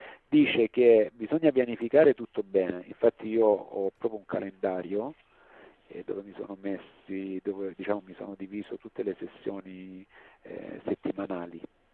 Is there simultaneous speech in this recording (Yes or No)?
No